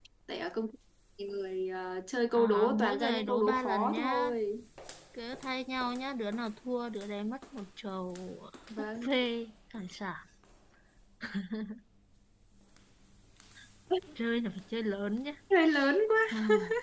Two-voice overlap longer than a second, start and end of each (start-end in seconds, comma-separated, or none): 2.3-4.3